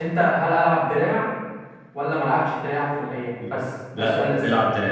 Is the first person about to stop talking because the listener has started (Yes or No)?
Yes